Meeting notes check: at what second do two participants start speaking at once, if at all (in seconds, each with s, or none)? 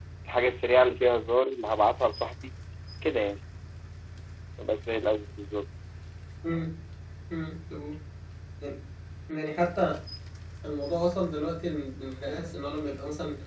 none